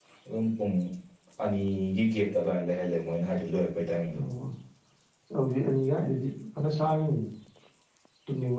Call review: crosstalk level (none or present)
none